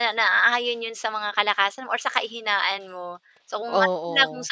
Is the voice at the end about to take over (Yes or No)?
No